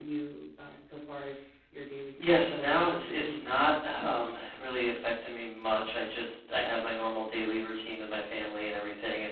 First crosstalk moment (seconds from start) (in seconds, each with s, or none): 2.2 s